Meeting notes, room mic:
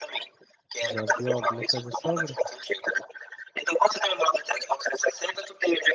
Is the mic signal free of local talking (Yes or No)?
No